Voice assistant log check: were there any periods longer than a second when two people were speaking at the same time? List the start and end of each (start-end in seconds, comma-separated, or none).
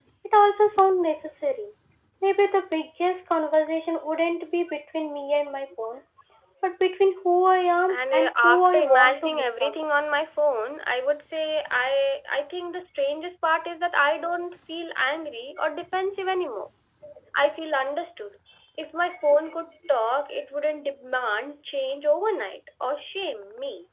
7.9-9.8